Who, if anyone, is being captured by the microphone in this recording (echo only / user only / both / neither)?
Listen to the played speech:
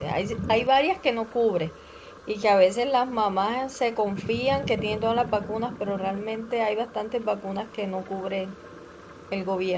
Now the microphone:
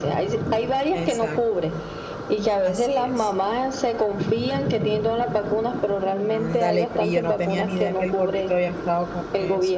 both